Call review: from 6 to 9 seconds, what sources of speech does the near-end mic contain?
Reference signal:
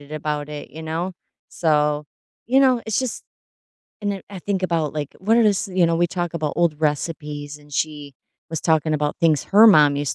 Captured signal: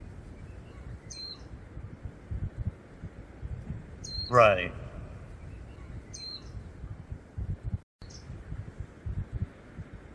neither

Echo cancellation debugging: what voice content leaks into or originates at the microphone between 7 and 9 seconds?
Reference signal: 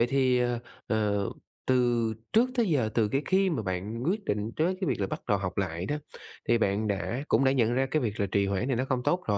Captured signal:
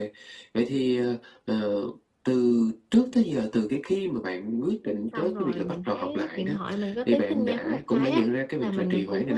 both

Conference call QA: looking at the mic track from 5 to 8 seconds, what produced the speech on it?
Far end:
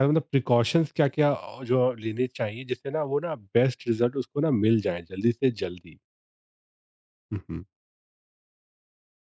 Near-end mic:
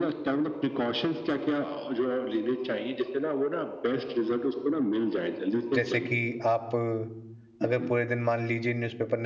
both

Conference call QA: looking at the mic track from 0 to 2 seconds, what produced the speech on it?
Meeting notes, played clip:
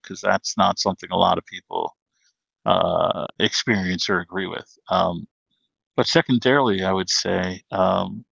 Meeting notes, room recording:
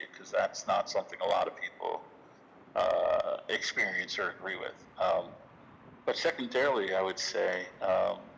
echo only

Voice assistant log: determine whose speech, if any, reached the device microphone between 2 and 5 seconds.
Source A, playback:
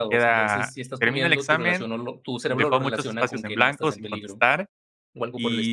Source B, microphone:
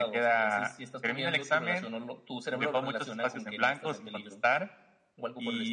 echo only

